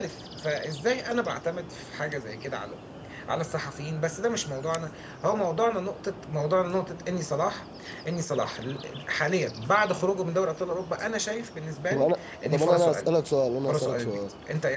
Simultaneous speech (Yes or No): Yes